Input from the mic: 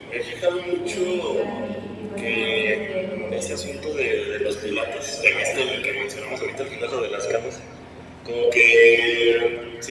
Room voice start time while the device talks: 0.8 s

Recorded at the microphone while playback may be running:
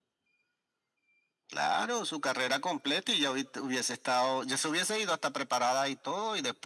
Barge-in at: none

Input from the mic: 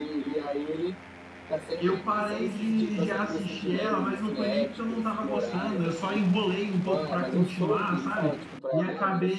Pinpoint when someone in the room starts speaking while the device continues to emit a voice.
1.8 s

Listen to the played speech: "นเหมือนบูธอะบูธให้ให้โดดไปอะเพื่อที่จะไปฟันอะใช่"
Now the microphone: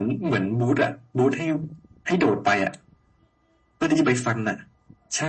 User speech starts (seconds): none

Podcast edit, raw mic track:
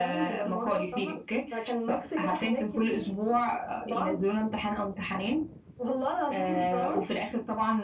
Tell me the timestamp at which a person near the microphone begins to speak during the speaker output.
none

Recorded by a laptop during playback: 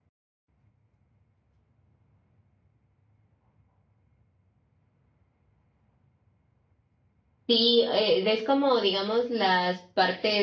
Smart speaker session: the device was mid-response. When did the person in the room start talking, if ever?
7.5 s

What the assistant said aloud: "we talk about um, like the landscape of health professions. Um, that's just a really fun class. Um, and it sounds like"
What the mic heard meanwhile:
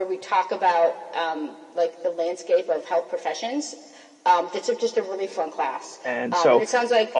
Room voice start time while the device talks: 6.0 s

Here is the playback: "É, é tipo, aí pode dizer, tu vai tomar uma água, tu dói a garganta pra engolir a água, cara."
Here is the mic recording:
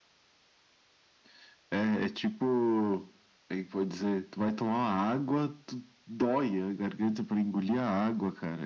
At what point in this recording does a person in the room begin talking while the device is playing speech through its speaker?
none

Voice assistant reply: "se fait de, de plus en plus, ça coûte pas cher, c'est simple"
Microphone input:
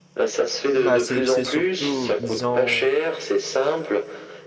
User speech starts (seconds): 0.7 s

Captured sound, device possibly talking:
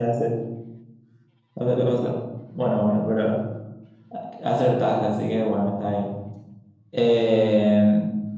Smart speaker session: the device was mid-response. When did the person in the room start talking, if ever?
none

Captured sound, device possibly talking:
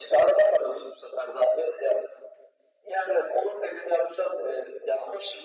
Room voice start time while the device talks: none

